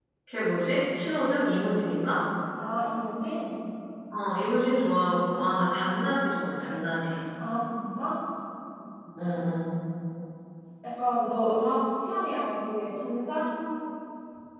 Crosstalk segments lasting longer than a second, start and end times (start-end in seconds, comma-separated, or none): none